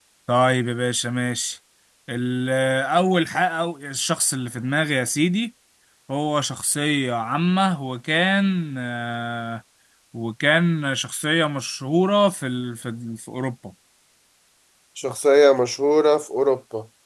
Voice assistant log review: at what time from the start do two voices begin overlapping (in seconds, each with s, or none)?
none